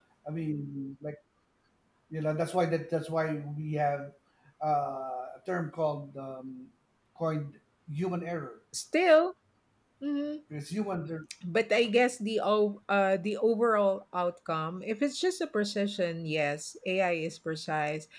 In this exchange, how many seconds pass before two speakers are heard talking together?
none

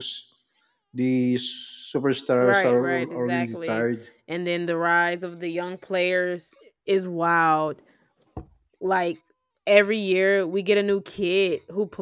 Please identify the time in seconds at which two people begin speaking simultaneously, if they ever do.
2.4 s

